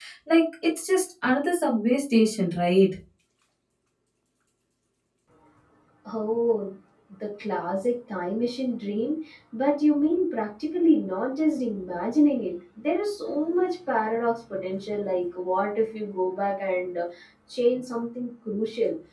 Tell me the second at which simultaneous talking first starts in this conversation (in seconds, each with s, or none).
none